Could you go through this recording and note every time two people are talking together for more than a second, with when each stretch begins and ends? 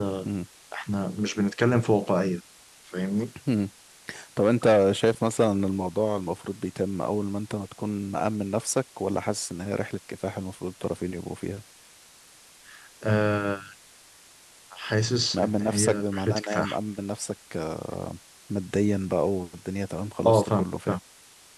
15.3-16.8

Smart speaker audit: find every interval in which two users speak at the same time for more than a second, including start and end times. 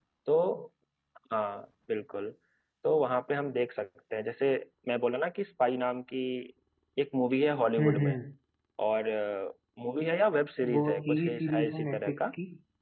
10.7-12.2

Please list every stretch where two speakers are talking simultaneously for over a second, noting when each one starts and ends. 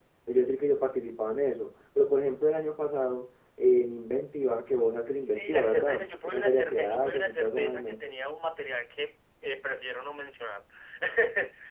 5.1-8.0

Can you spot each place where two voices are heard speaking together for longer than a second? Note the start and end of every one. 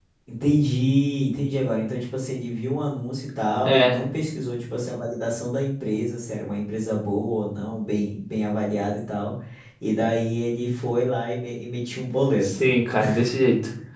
none

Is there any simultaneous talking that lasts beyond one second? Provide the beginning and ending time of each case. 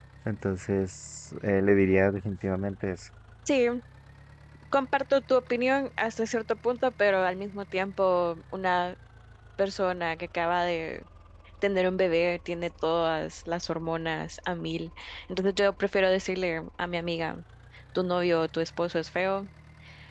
none

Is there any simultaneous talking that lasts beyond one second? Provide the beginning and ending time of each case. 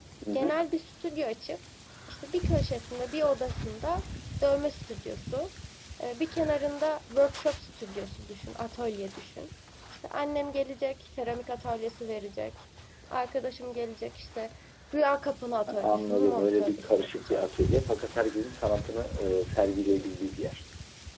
15.7-17.4

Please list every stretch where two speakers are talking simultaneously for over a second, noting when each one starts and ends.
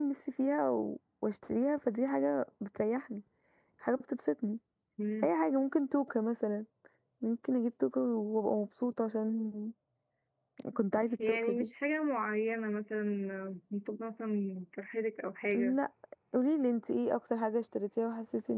none

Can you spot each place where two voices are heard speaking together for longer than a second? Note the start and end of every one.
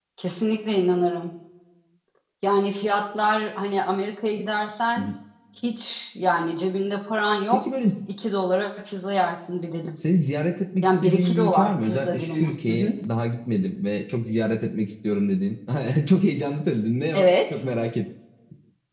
10.8-12.9

